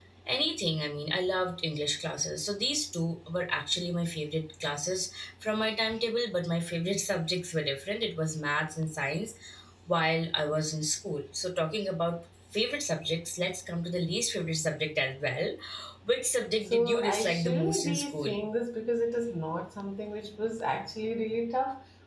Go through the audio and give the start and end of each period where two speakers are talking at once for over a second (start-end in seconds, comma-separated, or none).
16.6-18.3